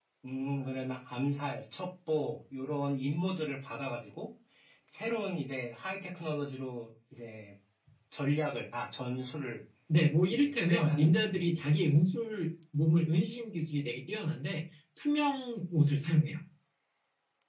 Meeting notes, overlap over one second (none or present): present